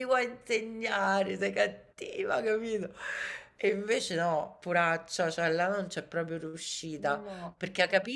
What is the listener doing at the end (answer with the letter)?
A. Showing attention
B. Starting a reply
A